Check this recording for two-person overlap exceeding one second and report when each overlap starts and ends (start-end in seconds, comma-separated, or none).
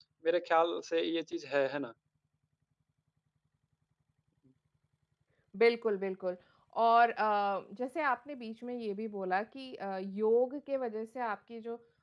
none